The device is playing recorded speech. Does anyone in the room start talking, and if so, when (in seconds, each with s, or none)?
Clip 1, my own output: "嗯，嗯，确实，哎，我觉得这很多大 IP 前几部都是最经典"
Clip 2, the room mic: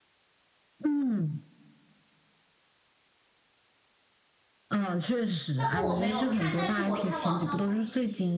5.6 s